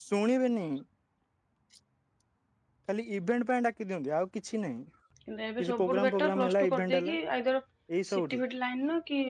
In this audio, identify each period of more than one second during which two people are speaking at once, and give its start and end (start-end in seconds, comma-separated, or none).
5.6-7.2